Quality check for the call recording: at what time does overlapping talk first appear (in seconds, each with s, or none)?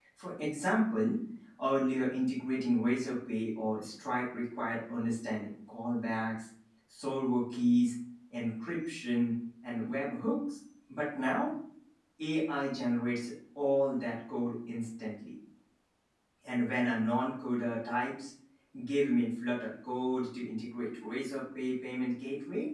none